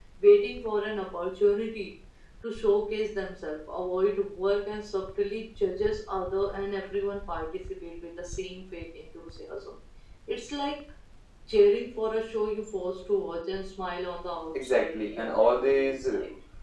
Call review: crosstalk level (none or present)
present